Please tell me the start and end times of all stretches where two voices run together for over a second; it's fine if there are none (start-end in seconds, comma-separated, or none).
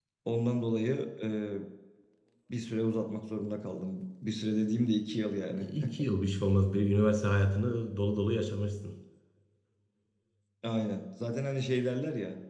none